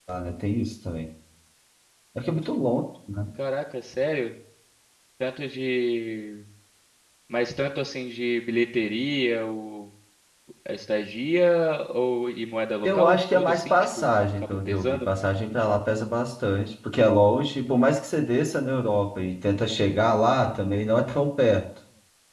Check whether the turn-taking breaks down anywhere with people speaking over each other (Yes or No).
Yes